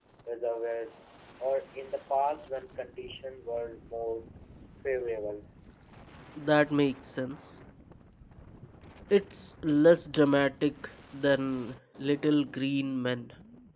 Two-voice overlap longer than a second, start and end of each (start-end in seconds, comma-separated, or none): none